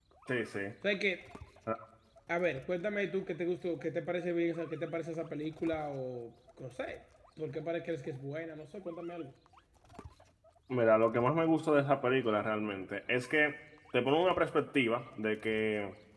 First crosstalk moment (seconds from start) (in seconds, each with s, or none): none